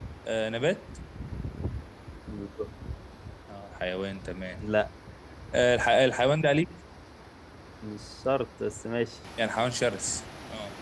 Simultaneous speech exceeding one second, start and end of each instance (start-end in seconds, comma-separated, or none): none